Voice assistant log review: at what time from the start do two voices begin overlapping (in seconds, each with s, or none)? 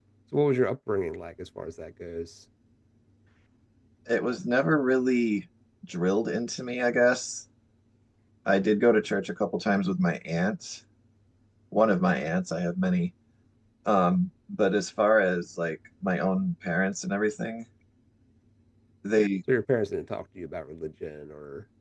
none